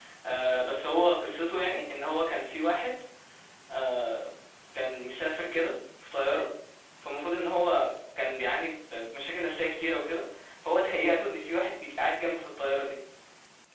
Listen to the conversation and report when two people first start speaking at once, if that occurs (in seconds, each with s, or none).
none